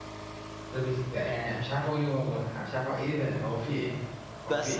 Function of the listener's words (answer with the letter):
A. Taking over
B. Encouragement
A